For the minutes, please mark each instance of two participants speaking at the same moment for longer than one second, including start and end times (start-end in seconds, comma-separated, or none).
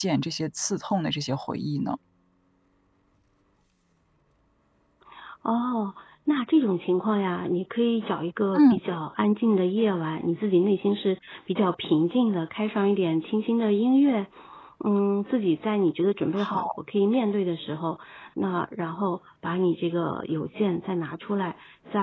none